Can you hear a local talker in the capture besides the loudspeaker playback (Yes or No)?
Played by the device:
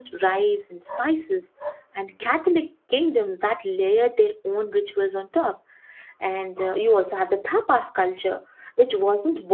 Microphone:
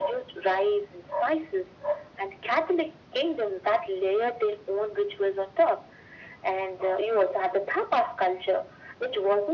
No